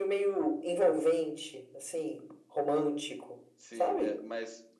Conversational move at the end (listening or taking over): taking over